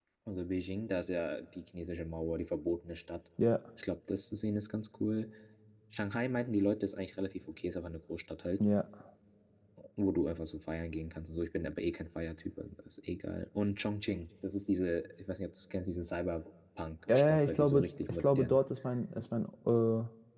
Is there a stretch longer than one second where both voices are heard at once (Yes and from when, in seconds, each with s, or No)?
Yes, from 17.1 s